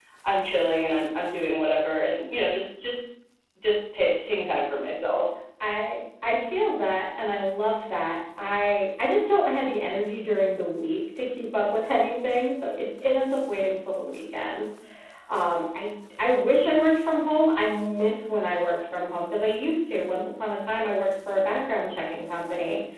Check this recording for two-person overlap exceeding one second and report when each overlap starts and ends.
none

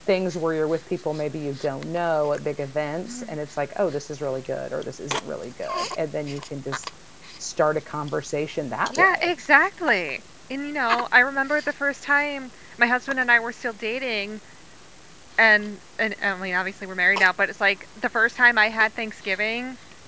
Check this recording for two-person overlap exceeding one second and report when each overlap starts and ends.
none

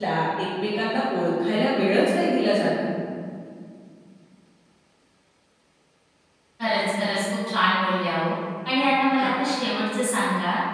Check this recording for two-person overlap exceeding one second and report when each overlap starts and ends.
none

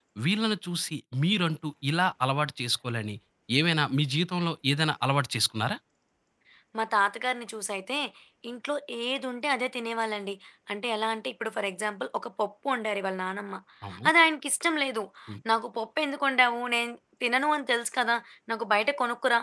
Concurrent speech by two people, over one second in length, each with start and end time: none

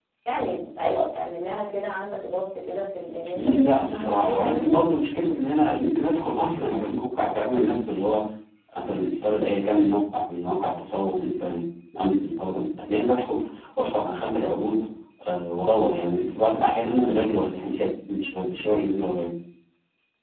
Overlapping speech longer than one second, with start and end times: 3.4-4.8

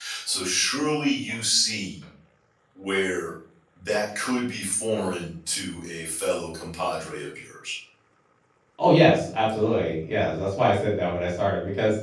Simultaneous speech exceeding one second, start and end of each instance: none

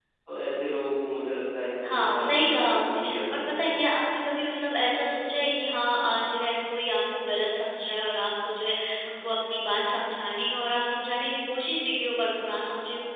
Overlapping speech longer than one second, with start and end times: 1.9-3.8

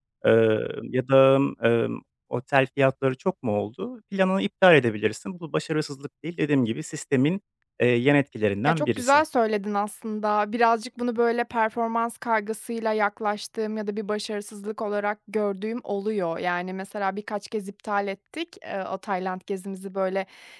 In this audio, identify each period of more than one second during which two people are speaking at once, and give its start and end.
none

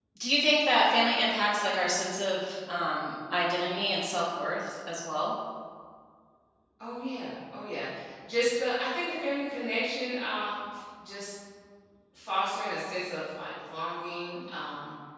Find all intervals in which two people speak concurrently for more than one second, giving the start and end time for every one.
none

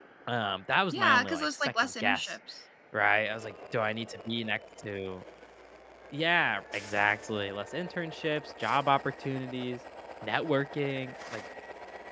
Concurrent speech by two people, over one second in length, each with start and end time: 0.9-2.4

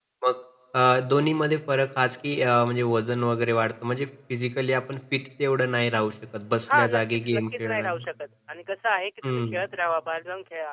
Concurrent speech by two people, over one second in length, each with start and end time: 6.7-8.1

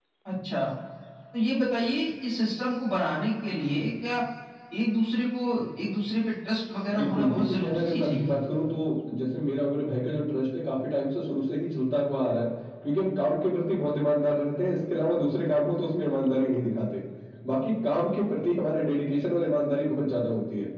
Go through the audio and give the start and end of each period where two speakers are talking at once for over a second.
7.0-8.4

